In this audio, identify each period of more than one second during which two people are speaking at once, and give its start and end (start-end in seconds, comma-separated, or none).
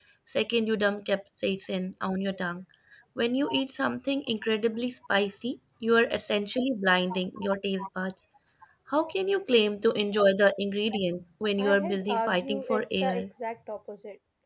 11.6-13.3